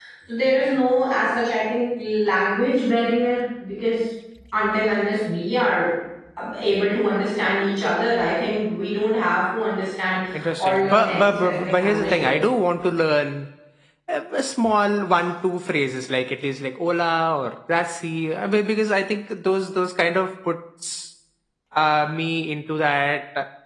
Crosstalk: present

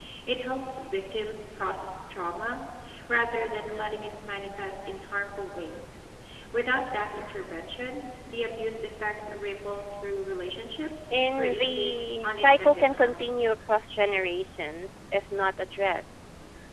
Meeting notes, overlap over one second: present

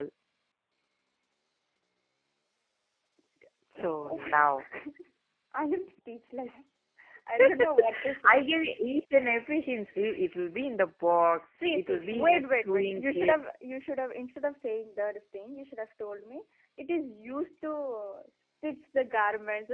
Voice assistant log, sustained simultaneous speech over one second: present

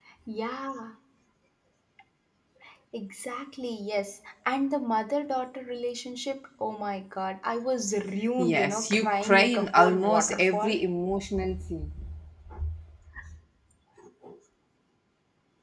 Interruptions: present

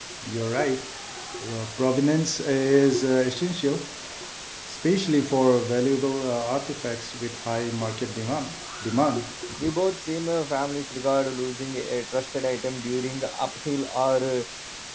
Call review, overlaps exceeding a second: none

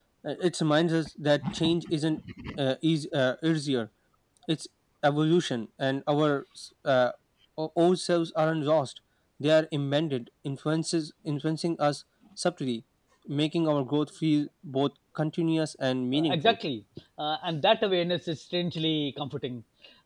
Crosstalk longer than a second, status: none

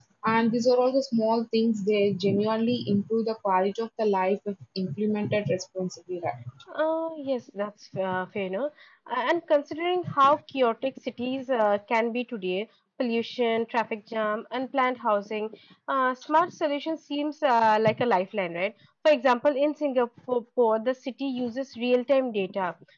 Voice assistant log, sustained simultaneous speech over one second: none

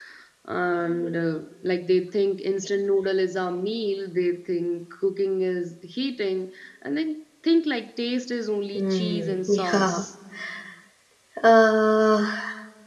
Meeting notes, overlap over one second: present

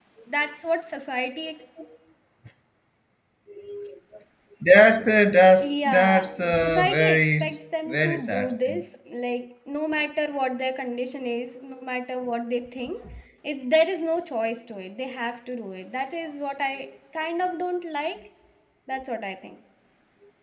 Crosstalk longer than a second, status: present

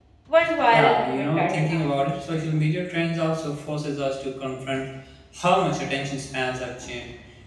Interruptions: present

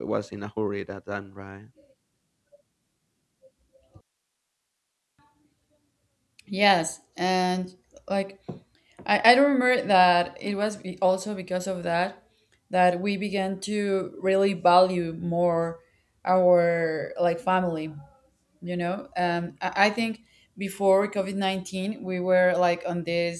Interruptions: none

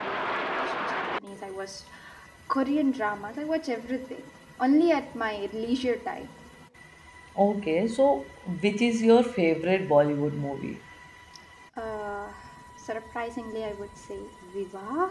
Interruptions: none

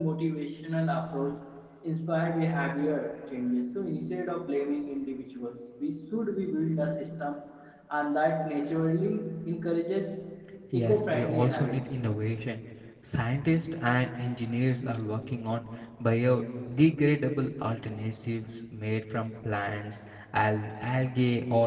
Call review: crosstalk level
present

